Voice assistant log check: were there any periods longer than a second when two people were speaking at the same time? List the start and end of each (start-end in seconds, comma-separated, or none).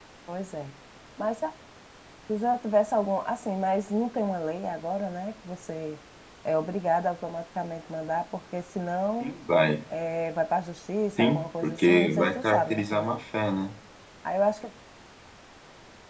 11.2-13.2